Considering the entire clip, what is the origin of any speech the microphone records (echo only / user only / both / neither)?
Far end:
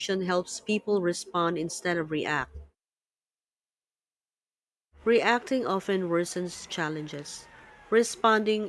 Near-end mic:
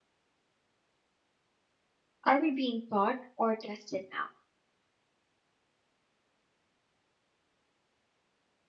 user only